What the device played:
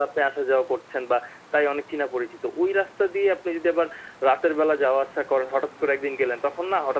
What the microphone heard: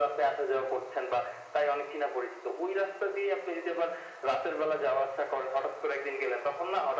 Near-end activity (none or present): none